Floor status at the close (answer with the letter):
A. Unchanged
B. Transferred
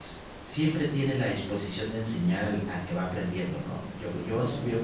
B